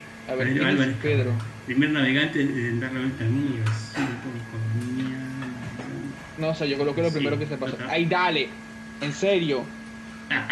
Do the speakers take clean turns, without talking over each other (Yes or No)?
No